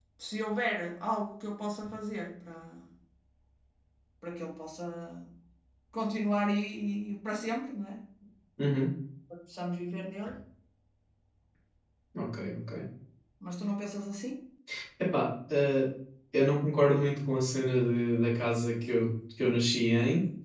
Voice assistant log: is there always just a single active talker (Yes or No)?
Yes